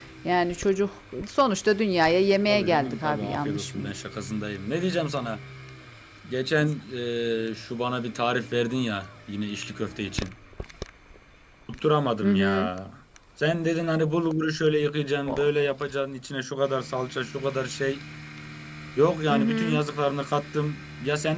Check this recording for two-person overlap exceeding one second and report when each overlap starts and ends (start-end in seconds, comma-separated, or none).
2.5-3.9